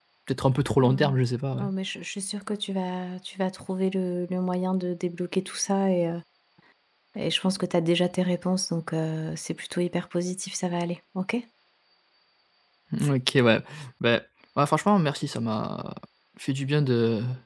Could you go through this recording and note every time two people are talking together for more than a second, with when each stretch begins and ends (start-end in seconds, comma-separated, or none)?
none